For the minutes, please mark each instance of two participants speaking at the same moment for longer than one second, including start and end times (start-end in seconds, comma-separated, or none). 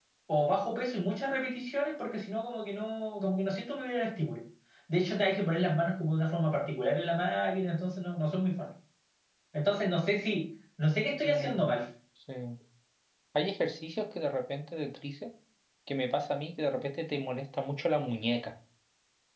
none